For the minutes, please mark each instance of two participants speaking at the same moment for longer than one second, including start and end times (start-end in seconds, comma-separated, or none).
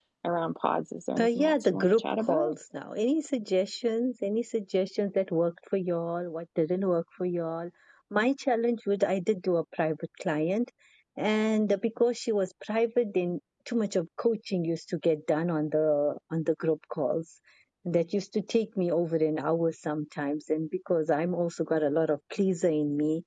1.2-2.5